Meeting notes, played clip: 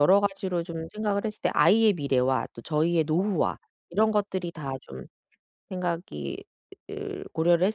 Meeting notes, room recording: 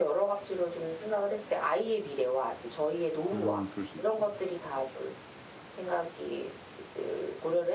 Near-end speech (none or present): present